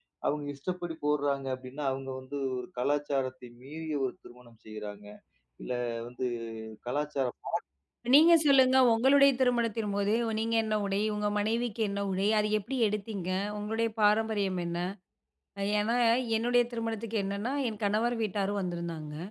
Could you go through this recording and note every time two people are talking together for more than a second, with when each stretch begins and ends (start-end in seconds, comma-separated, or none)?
none